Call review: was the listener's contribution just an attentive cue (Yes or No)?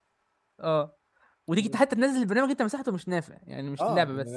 No